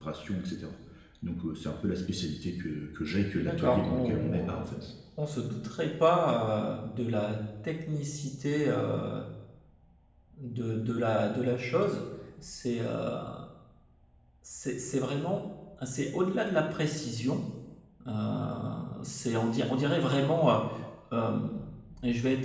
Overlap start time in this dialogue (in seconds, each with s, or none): 3.3 s